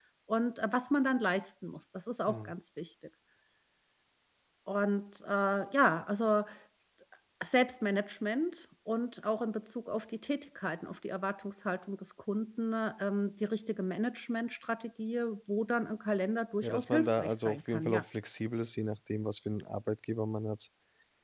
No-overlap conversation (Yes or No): No